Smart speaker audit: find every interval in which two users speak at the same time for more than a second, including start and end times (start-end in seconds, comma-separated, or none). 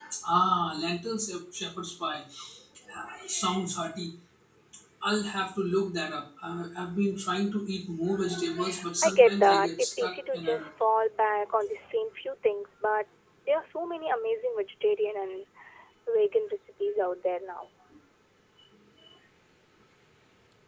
9.0-10.7